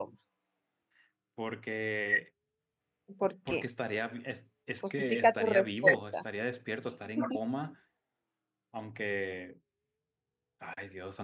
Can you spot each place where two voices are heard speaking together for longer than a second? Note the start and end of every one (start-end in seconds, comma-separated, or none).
4.9-6.2